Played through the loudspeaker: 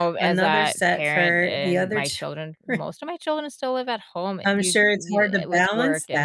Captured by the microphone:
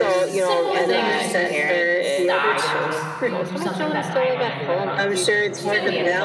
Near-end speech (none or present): present